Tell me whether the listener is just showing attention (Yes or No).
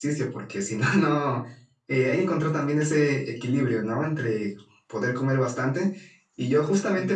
Yes